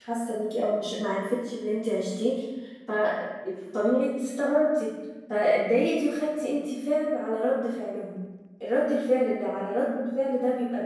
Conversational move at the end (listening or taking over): listening